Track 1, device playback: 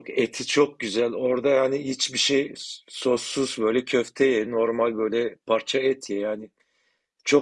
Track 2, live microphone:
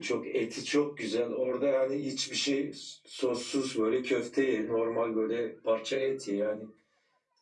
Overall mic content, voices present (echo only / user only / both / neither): echo only